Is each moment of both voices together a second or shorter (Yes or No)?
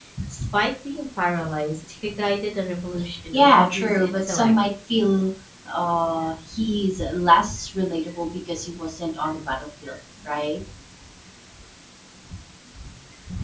No